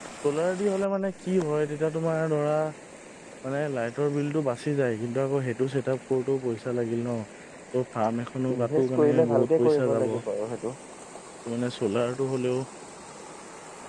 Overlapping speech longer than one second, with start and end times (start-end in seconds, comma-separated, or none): 8.6-10.1